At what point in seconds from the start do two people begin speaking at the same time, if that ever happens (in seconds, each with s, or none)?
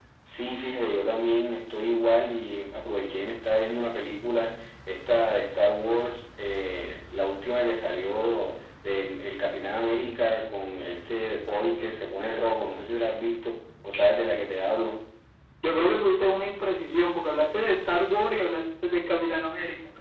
none